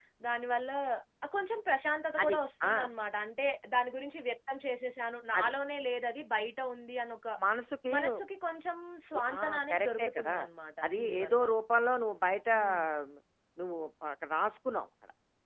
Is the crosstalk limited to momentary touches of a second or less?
No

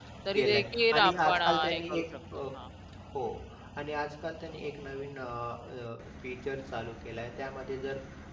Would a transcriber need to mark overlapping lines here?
Yes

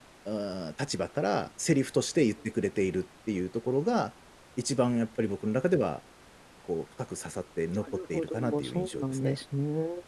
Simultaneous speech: Yes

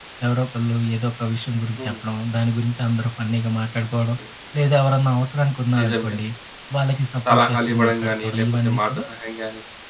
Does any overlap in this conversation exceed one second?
Yes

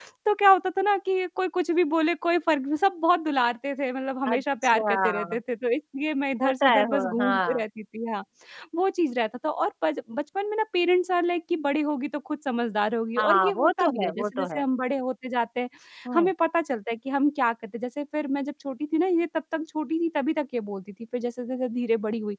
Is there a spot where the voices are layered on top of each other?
Yes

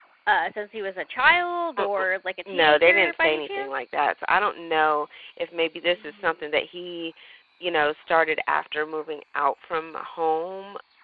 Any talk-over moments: Yes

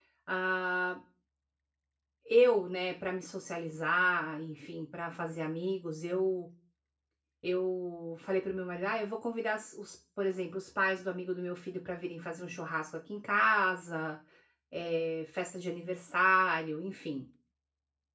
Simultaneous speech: No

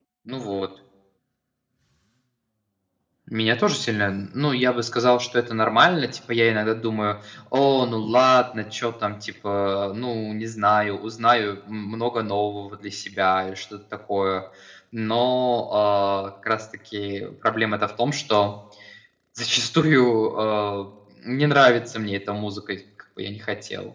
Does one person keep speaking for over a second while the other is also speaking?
No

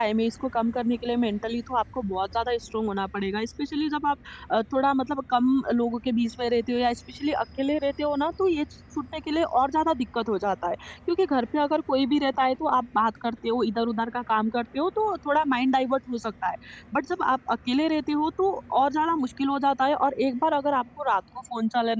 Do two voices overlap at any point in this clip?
No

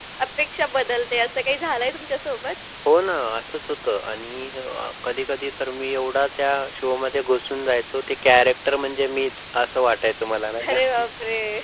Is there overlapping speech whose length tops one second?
No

